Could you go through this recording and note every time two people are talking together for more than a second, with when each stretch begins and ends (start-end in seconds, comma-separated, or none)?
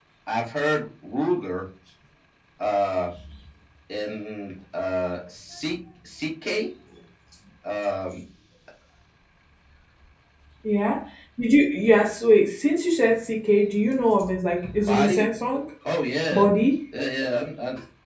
none